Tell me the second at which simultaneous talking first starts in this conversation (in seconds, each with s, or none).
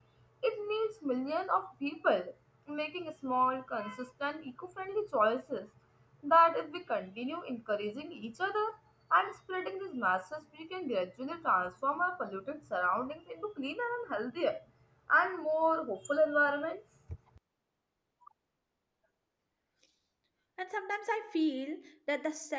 none